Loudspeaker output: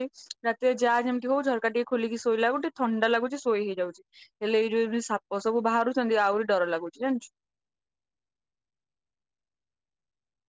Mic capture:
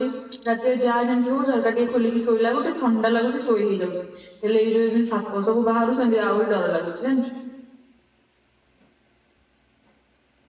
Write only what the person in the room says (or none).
none